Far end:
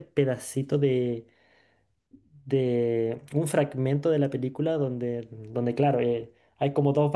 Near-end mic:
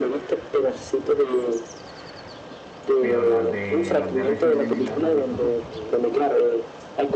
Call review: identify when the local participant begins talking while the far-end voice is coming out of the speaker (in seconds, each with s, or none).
3.0 s